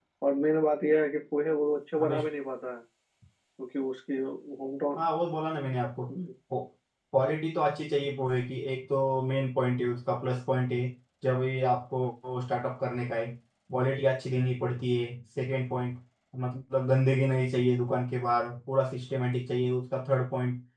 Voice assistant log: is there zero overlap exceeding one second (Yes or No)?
Yes